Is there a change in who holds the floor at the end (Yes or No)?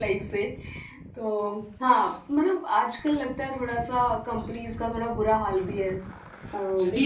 Yes